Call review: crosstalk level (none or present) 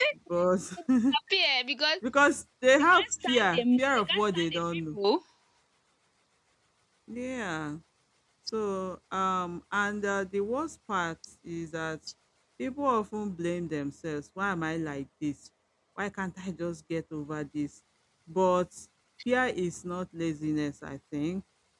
present